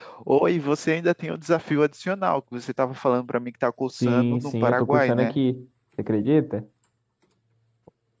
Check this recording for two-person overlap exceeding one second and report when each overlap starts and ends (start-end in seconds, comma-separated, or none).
4.0-5.4